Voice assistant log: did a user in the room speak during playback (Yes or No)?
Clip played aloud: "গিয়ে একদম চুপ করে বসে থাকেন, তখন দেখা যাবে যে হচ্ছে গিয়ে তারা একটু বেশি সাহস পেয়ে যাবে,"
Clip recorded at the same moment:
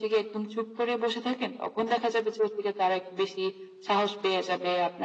No